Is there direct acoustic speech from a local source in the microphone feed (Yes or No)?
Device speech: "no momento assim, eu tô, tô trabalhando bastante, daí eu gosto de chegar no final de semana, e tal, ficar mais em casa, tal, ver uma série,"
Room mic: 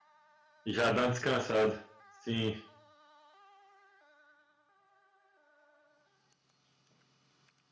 Yes